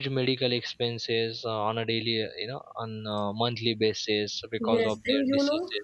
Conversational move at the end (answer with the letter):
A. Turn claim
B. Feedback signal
A